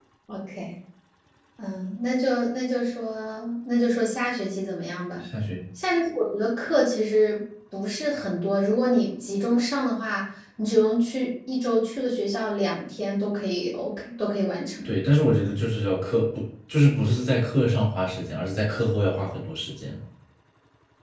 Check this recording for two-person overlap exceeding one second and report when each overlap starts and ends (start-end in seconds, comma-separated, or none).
none